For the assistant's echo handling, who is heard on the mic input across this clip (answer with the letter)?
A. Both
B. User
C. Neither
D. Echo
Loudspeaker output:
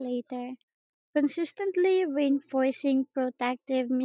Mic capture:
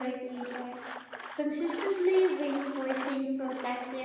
D